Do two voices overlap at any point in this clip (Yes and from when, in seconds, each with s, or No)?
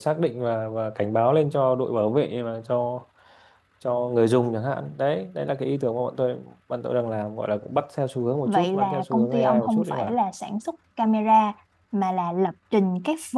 Yes, from 8.4 s